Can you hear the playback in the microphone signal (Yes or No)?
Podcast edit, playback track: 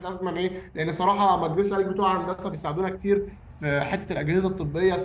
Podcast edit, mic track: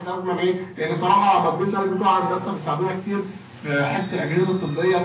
Yes